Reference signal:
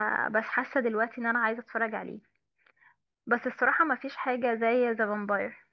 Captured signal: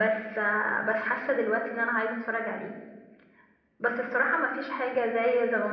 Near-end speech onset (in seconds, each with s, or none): none